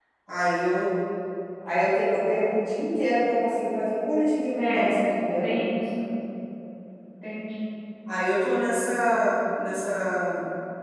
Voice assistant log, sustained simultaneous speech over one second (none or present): none